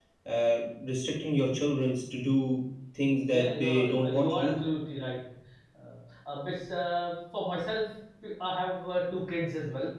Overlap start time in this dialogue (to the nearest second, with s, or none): 3 s